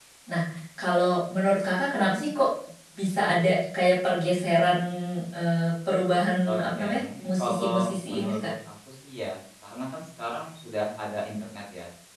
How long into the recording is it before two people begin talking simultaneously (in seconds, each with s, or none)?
6.5 s